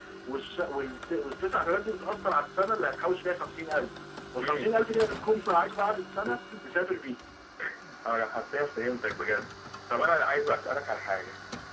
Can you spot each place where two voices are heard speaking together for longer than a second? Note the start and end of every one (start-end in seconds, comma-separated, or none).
none